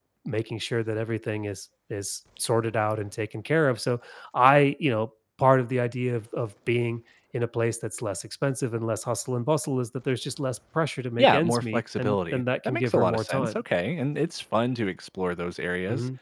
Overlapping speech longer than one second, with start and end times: 11.2-13.6

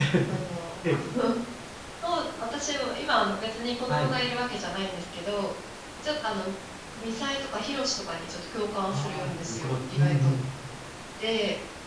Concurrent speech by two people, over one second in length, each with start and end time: 8.9-10.3

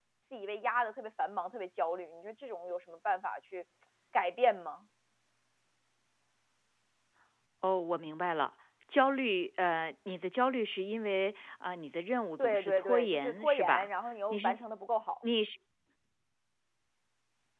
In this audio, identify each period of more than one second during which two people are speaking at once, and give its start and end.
12.4-13.9

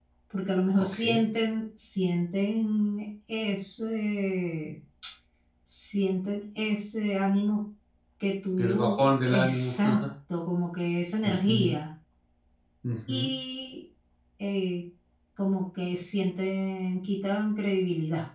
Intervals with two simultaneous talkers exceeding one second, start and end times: 8.6-10.0

